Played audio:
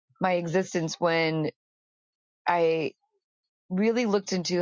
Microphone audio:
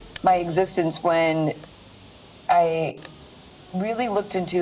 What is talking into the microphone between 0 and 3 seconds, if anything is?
echo only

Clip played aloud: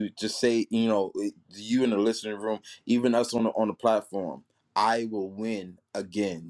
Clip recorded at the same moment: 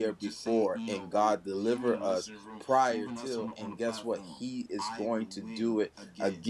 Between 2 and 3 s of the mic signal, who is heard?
both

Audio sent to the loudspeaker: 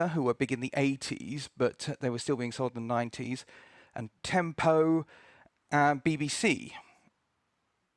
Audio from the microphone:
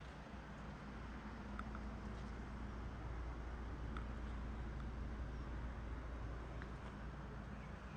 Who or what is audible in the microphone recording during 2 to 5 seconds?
neither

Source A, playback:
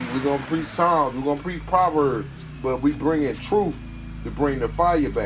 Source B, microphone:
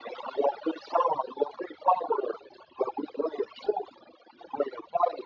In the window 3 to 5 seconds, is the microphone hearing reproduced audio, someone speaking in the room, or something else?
echo only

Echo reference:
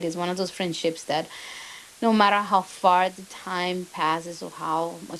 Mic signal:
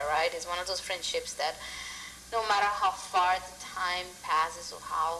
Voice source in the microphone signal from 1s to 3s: echo only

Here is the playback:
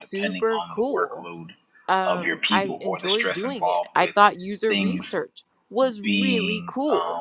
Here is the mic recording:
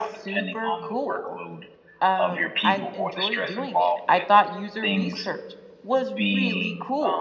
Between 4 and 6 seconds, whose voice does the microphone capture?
echo only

